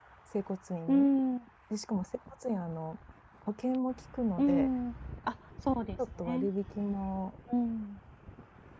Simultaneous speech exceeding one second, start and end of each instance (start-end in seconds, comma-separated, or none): none